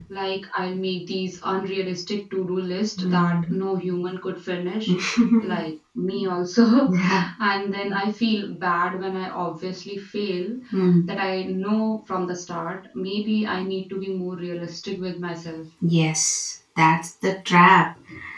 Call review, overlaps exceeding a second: none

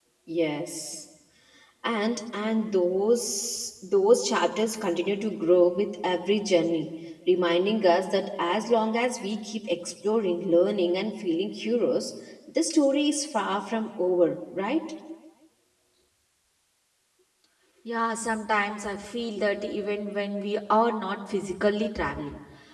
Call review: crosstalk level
none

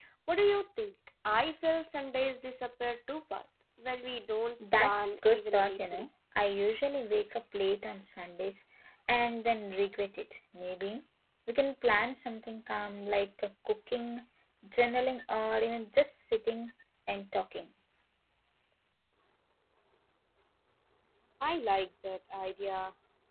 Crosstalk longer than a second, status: present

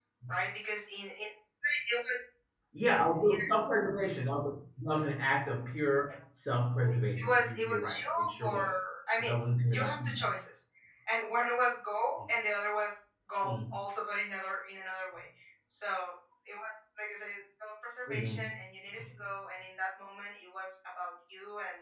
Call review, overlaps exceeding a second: present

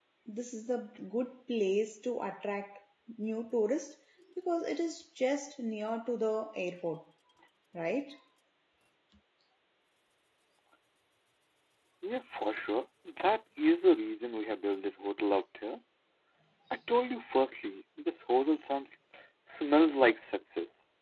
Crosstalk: none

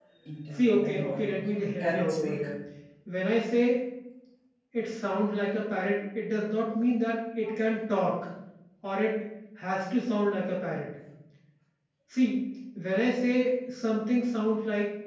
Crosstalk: present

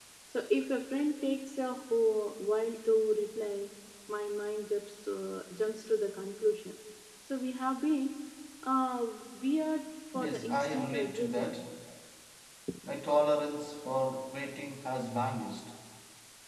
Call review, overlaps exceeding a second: present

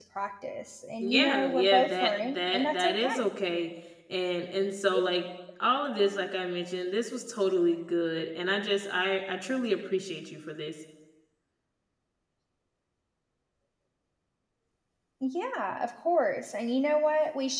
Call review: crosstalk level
present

